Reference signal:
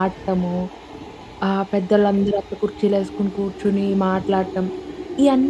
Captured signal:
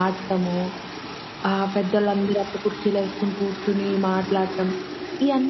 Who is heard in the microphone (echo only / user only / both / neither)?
echo only